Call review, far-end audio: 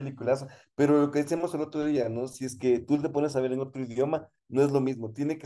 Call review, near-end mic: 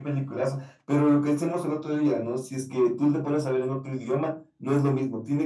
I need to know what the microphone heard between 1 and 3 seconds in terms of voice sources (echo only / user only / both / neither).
echo only